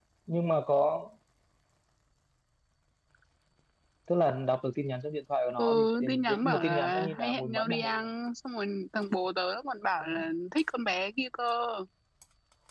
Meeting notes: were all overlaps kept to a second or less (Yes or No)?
No